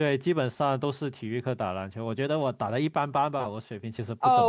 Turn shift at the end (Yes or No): Yes